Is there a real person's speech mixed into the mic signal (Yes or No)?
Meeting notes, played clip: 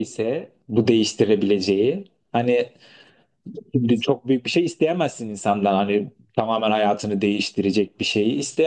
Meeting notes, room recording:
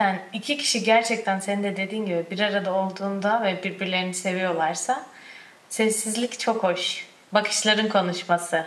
Yes